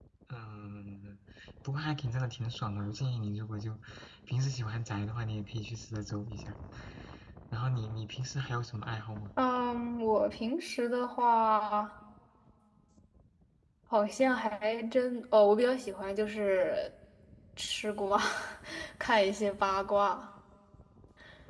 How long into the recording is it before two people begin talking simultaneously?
none

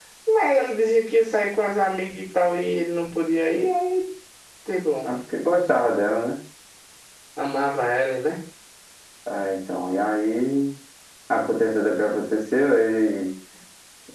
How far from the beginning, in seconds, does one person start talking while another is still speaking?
none

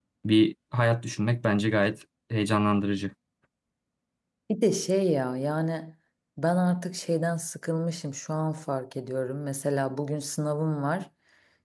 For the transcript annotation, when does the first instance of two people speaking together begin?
none

